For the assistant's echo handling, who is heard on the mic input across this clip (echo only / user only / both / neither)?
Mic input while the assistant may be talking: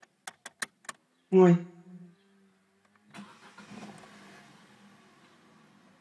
user only